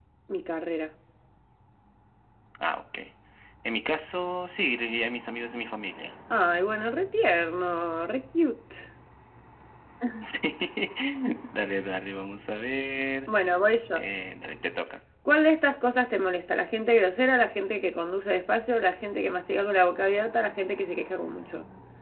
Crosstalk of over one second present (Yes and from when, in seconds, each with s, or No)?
No